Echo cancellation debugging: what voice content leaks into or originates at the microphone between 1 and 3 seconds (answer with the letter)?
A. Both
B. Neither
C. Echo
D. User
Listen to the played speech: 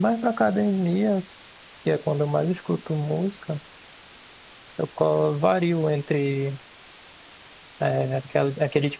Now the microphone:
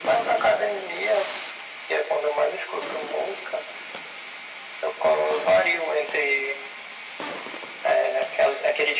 C